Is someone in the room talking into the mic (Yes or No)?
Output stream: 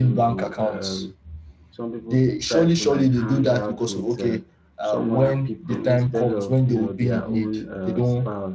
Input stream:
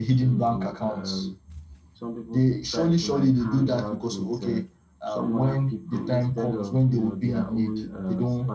No